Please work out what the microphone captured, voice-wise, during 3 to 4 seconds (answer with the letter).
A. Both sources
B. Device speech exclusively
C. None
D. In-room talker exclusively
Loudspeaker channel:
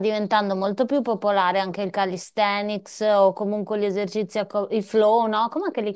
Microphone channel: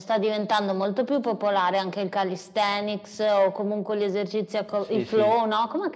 B